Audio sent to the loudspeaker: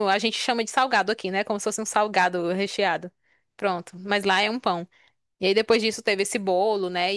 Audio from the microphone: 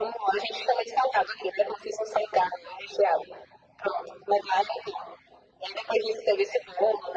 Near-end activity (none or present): none